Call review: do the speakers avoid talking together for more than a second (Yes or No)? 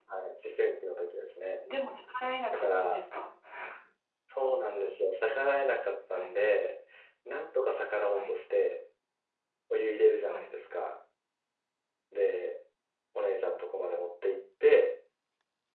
Yes